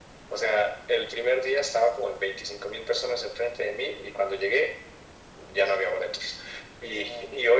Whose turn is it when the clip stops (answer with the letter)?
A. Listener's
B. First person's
B